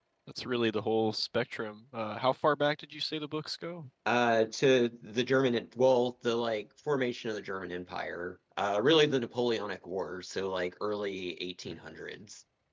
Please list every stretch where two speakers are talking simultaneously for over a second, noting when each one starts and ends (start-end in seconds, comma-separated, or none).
none